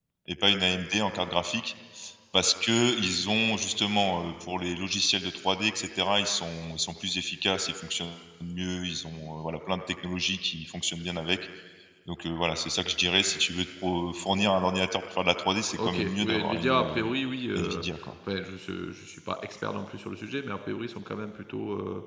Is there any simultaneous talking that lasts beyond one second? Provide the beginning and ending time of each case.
15.8-17.0

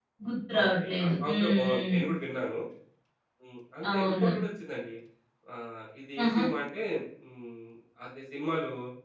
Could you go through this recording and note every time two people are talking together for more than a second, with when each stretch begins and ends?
0.6-1.9

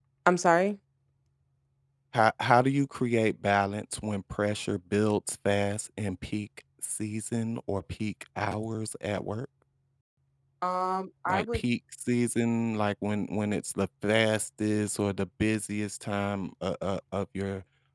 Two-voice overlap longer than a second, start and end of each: none

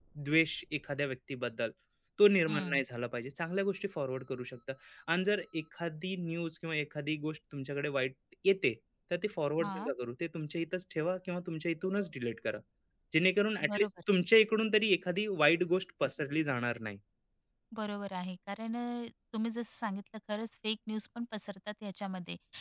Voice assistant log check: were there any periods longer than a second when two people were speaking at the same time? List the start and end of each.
none

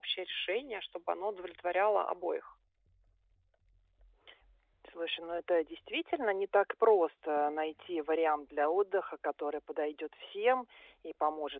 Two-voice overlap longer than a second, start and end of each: none

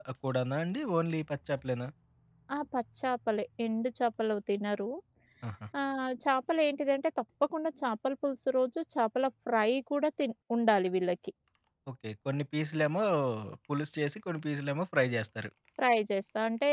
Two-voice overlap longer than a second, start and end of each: none

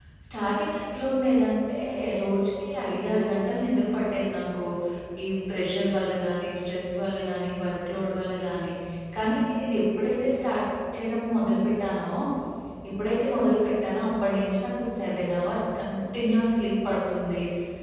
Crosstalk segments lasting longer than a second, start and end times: none

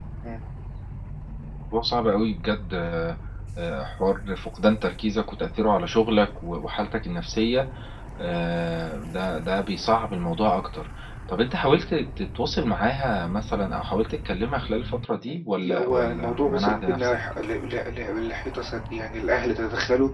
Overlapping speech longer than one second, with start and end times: 15.3-17.2

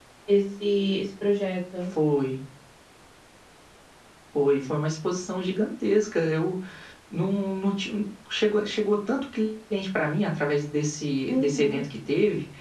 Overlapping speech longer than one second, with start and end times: none

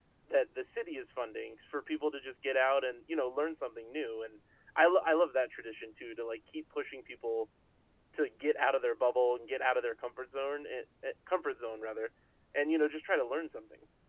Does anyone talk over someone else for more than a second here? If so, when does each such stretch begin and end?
none

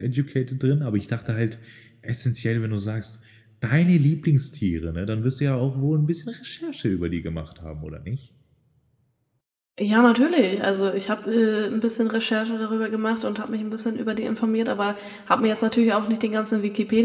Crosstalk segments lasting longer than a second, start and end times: none

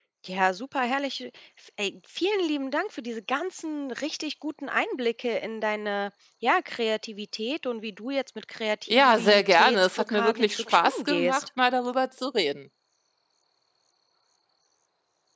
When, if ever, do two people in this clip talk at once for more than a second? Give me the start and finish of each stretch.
8.9-11.5

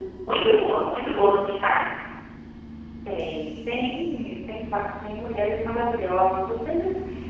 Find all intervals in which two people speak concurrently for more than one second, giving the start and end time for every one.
none

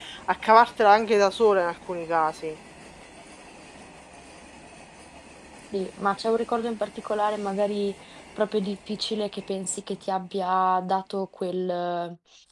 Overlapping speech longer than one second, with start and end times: none

